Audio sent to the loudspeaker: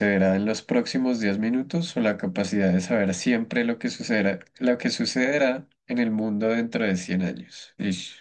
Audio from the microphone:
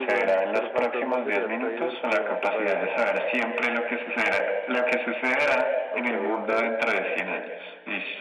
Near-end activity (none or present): present